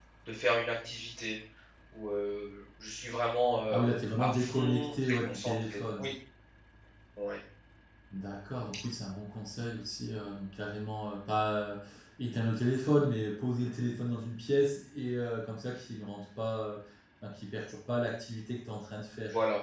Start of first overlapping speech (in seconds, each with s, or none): 4.2 s